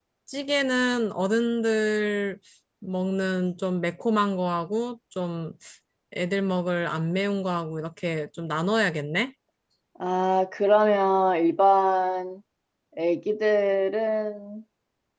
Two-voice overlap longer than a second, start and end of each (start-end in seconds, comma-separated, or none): none